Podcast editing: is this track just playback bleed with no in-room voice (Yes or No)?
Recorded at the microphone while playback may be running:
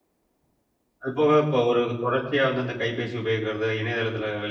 No